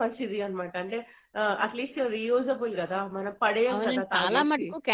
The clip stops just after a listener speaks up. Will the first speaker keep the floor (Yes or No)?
No